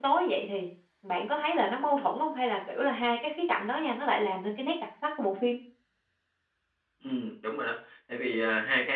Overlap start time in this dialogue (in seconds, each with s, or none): none